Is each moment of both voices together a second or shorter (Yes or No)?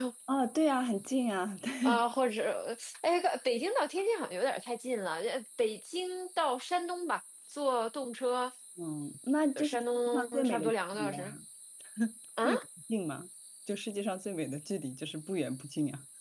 No